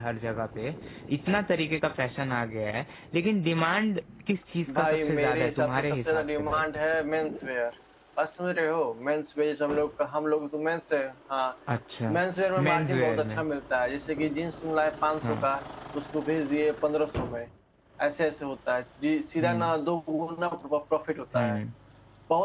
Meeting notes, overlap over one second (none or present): present